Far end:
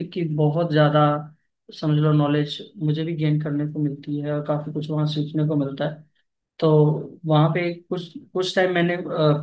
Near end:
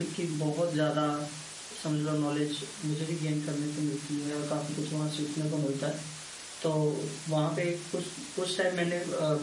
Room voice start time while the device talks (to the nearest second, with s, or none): none